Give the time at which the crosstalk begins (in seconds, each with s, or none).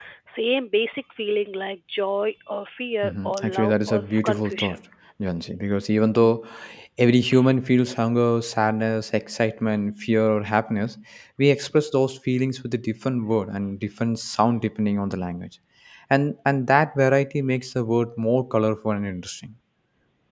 3.0 s